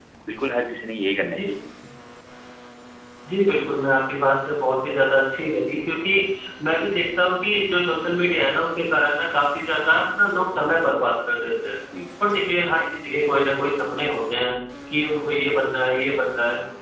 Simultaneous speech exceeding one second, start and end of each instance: none

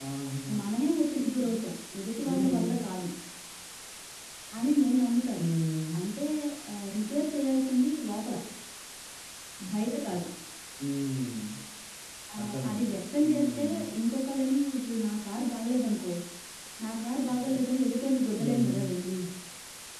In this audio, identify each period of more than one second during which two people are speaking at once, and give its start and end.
12.4-13.6

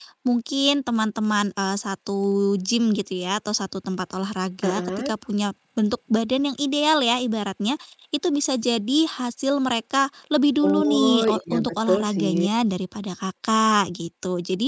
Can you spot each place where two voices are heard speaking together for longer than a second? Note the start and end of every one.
10.7-12.3

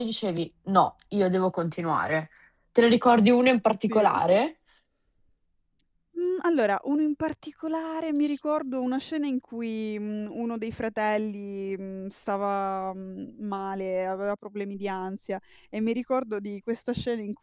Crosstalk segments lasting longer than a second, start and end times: none

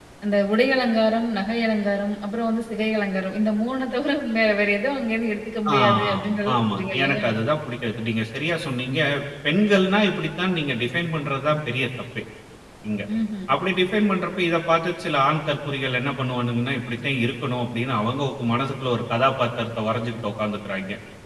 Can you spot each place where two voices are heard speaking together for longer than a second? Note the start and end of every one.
5.8-7.2

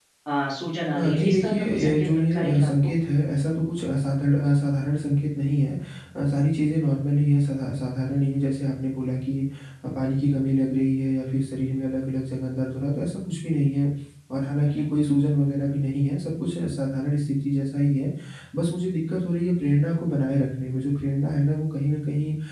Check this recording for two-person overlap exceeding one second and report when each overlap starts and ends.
1.0-2.9

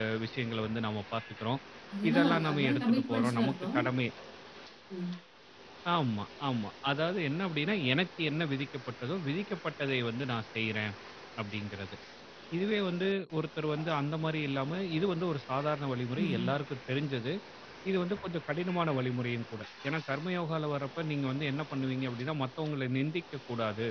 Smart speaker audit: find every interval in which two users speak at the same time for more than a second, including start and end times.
2.1-3.8

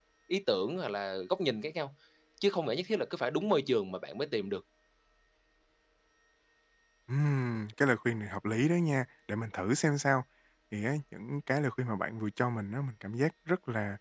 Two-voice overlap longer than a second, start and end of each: none

